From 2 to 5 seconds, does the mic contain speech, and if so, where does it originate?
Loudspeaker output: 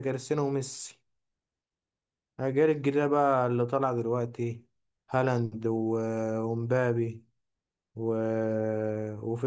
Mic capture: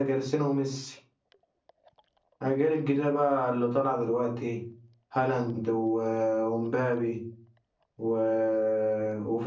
echo only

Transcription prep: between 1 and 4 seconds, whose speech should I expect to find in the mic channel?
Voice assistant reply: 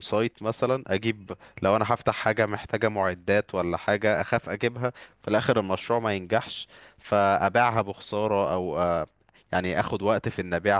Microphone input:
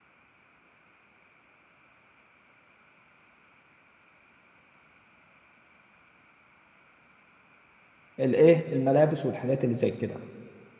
neither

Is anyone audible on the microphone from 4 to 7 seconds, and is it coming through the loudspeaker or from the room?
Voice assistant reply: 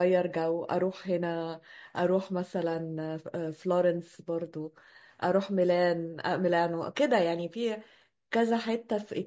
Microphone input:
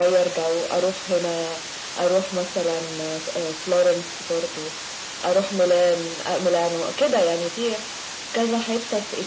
echo only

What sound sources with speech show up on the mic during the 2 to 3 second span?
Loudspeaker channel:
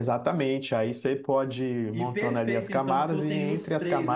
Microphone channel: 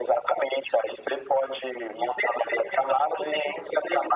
echo only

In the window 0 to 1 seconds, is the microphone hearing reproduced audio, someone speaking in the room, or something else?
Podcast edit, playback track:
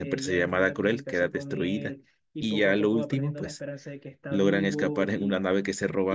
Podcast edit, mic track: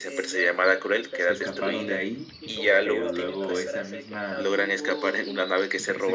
both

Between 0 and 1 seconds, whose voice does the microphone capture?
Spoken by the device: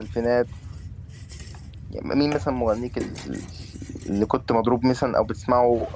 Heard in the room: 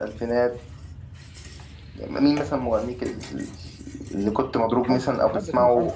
echo only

